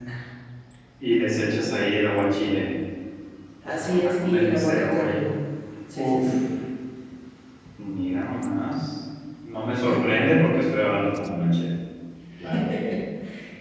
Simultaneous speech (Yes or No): Yes